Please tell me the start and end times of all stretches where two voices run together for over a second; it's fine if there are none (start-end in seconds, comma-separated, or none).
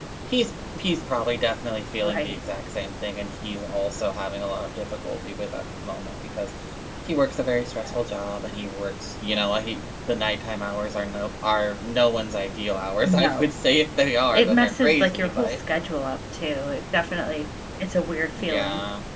14.3-15.6